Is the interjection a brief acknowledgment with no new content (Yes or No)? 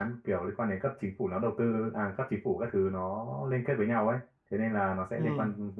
Yes